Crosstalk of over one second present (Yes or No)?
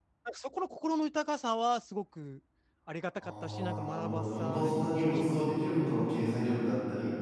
Yes